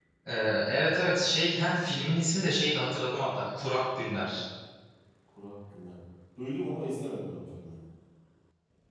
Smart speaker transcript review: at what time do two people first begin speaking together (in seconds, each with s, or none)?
none